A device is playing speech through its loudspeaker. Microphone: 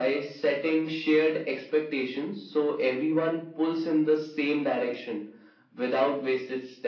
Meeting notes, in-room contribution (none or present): none